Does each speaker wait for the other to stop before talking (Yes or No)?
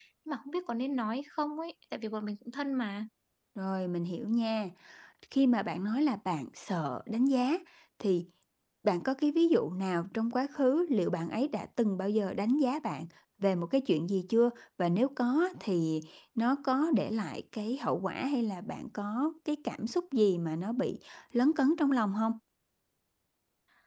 Yes